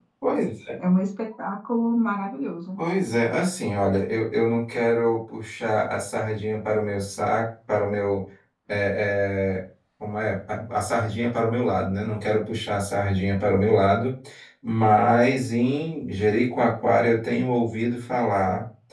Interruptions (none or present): none